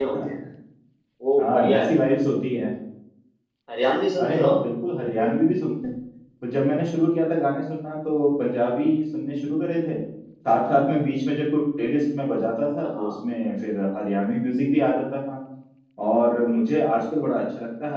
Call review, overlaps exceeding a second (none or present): none